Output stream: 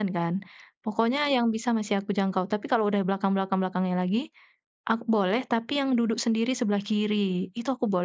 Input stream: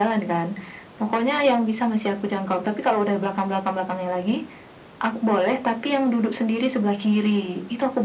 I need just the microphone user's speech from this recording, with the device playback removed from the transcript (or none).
none